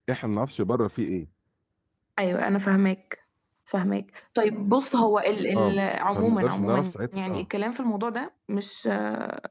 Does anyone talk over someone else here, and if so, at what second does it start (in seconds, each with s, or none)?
5.5 s